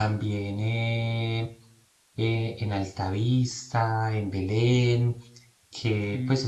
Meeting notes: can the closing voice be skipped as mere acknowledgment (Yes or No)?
No